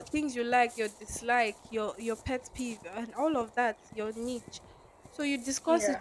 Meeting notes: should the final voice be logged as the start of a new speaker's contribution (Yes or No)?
No